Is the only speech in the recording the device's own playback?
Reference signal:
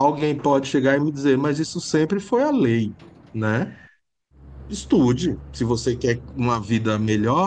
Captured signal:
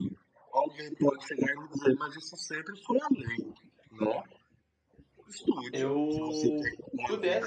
No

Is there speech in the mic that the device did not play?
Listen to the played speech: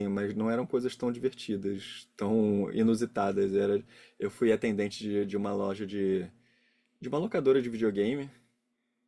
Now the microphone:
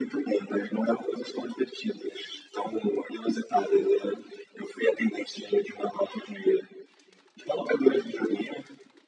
No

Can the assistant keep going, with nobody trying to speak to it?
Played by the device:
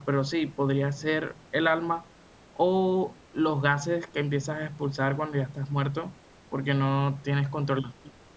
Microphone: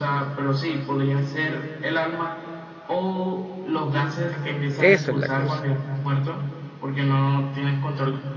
No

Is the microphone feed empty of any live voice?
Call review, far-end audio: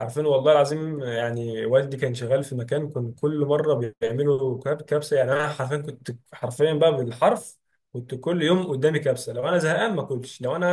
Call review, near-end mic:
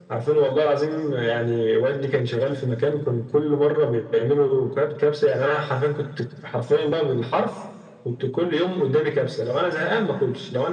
Yes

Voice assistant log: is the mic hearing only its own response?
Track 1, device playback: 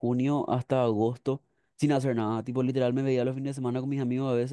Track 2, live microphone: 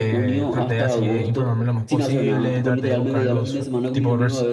No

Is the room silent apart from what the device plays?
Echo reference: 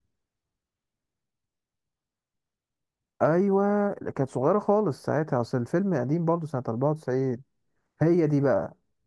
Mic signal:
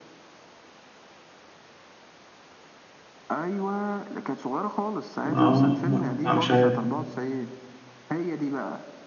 No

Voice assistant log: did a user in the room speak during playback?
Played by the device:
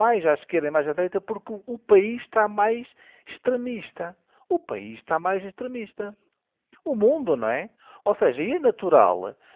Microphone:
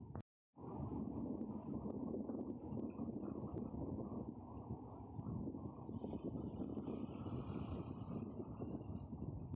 No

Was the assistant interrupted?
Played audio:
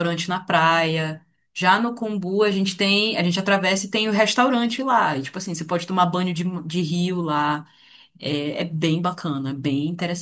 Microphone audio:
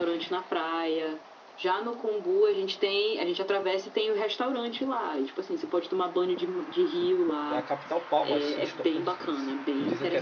Yes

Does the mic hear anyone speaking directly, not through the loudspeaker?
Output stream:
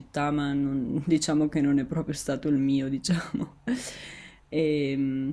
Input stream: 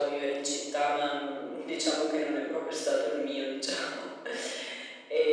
No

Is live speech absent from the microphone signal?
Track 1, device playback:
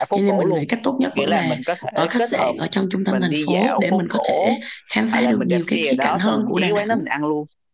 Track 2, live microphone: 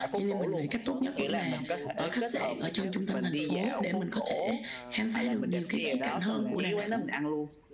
No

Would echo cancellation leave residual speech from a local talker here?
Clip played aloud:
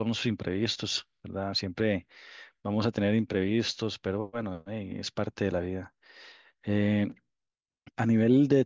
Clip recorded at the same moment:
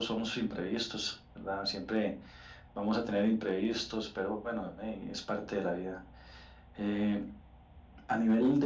No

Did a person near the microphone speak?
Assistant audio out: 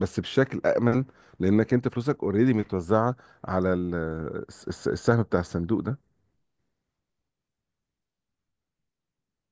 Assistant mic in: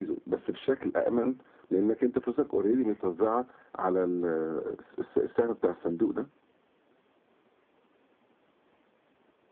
No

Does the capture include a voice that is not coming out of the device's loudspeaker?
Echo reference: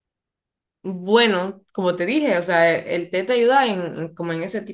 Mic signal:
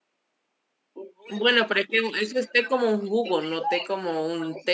Yes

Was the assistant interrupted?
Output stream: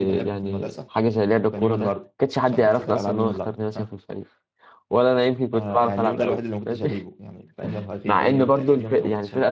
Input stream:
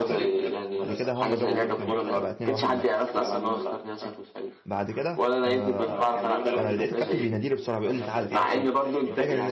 Yes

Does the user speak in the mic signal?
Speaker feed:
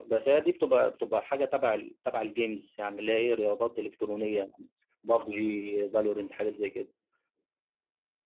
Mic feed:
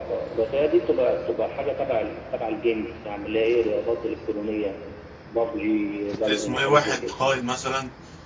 Yes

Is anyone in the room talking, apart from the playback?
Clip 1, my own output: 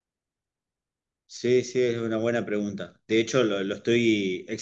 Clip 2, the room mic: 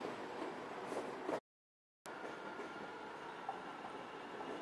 No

